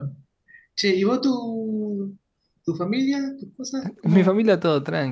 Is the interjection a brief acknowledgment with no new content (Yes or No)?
No